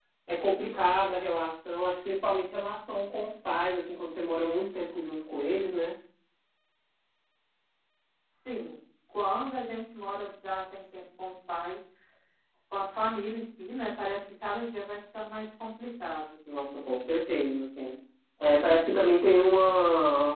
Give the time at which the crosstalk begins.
none

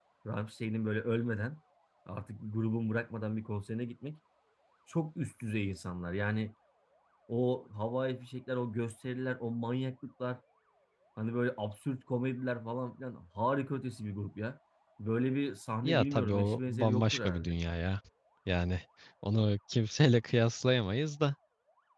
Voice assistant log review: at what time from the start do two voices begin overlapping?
15.8 s

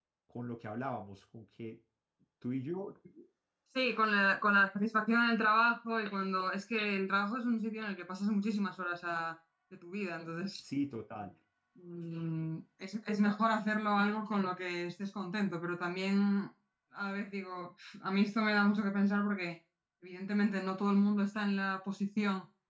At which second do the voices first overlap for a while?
none

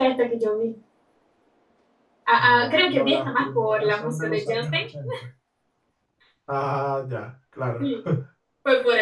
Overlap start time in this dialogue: 2.4 s

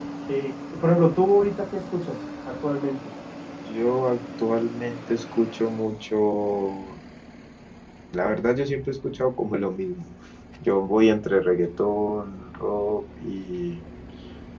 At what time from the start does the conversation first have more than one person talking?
none

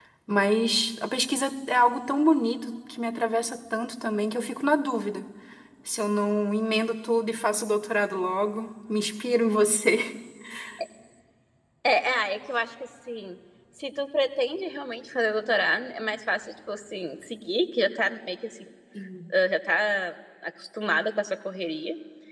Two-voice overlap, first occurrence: none

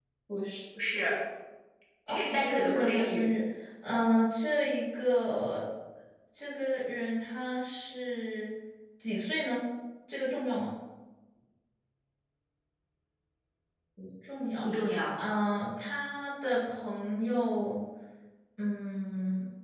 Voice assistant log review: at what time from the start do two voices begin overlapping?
2.1 s

